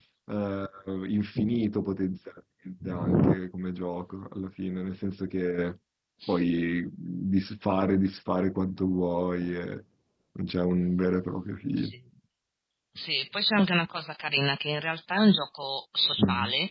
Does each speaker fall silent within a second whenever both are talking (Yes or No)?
Yes